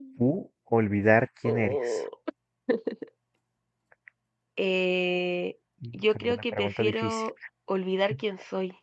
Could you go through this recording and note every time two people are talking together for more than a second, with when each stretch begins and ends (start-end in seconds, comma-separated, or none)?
5.9-7.3